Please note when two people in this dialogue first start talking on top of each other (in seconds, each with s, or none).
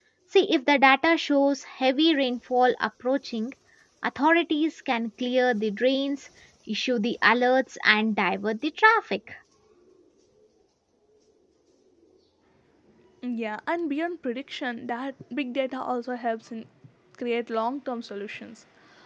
none